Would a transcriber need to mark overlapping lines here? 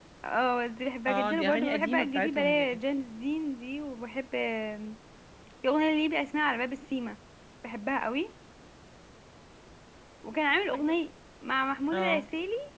Yes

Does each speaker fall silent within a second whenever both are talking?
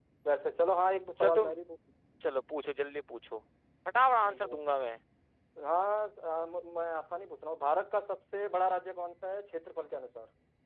Yes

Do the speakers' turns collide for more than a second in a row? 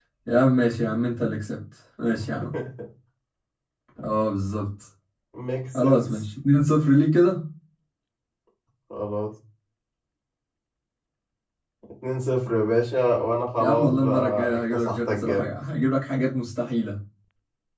Yes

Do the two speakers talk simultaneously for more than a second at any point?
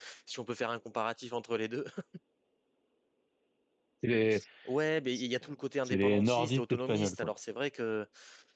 Yes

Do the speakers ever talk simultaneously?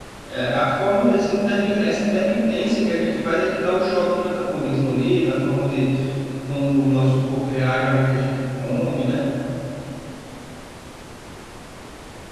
No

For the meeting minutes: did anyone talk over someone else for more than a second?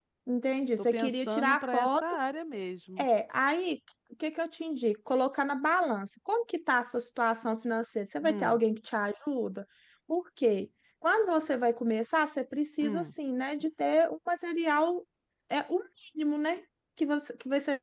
Yes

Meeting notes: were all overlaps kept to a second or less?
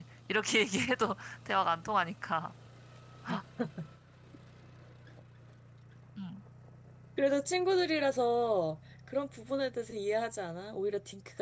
Yes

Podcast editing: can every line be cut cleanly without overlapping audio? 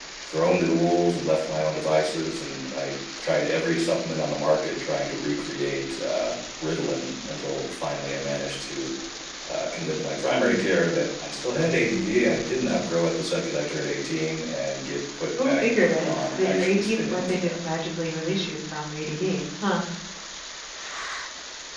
No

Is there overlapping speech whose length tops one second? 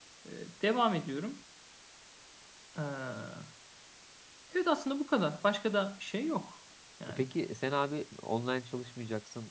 No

